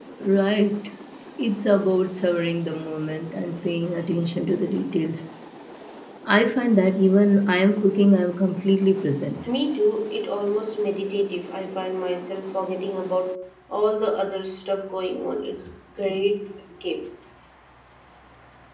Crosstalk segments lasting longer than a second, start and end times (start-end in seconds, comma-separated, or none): none